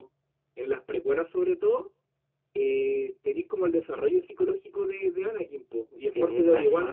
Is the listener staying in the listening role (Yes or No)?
Yes